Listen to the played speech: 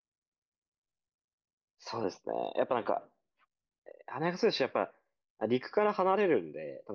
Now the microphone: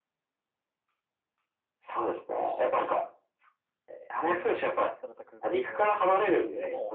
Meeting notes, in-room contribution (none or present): present